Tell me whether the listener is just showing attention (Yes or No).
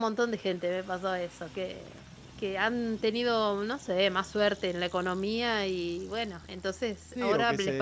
No